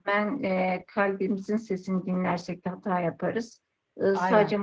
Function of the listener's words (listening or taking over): listening